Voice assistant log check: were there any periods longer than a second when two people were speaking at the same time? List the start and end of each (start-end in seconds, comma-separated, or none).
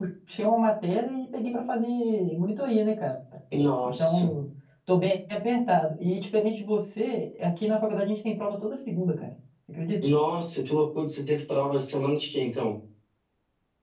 none